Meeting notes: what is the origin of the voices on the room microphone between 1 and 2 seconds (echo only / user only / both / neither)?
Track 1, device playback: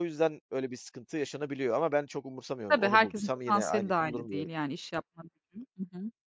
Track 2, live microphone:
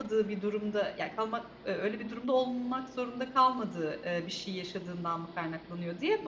user only